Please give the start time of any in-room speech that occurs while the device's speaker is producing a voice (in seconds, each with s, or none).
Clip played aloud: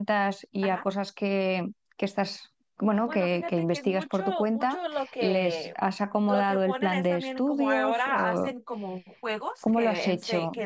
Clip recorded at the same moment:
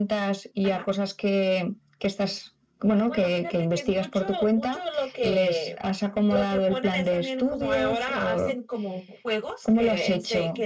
none